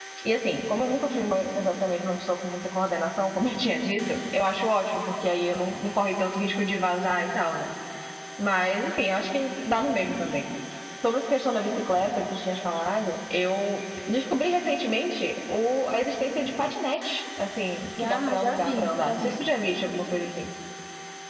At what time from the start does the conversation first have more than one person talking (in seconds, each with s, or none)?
18.0 s